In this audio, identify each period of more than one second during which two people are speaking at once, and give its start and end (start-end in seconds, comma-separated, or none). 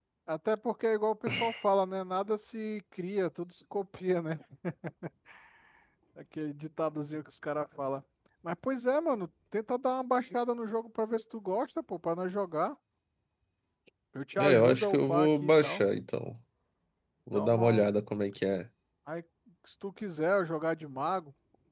14.4-15.8